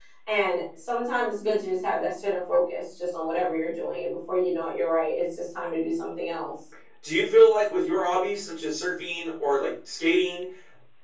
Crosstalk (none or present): none